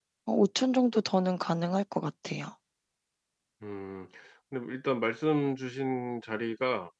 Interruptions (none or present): none